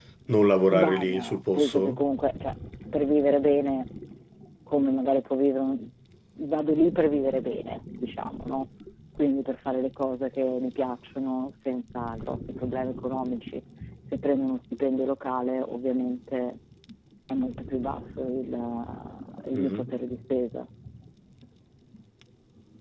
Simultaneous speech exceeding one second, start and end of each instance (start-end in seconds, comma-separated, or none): 0.7-2.0